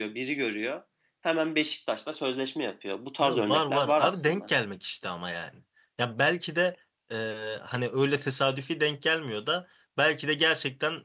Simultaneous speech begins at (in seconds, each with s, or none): 3.2 s